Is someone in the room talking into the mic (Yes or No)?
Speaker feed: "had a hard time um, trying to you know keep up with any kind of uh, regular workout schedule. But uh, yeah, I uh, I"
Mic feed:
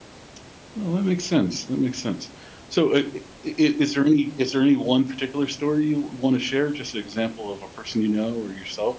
Yes